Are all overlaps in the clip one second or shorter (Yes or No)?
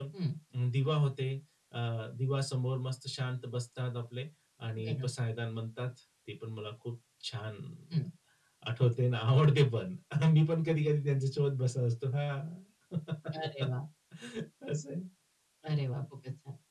Yes